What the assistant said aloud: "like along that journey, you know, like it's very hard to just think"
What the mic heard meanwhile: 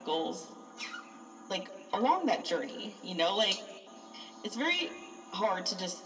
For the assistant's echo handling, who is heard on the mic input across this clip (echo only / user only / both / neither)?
echo only